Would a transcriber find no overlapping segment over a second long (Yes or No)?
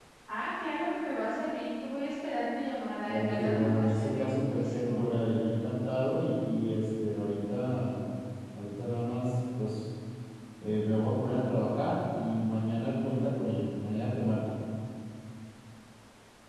No